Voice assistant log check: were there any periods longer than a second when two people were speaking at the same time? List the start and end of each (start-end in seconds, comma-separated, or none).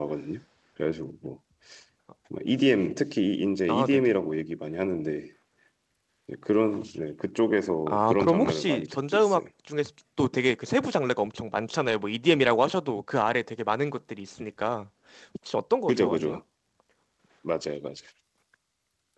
7.9-9.4